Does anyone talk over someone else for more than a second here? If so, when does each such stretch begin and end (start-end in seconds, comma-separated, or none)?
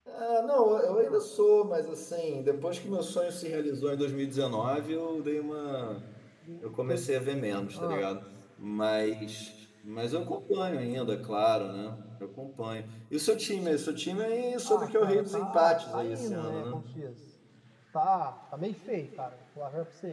14.6-16.8